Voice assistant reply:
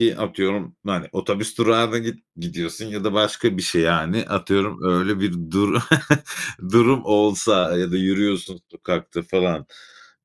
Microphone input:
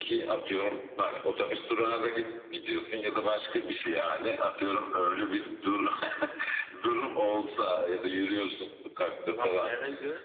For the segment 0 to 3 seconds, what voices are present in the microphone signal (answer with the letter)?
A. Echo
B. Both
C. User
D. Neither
A